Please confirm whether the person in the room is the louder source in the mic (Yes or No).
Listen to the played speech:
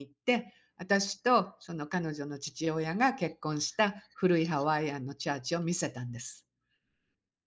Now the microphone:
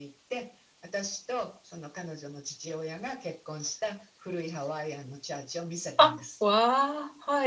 Yes